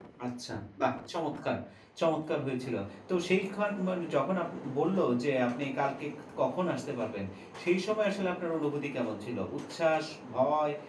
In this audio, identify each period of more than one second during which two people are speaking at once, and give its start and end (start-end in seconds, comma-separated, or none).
none